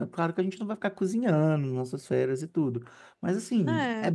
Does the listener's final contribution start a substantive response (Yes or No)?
No